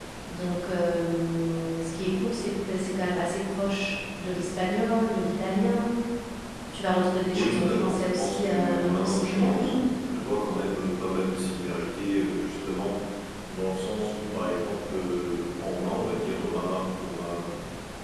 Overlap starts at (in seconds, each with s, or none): 7.3 s